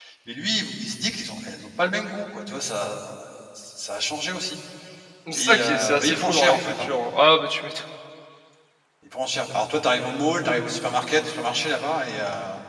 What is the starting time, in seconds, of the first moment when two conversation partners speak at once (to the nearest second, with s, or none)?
5 s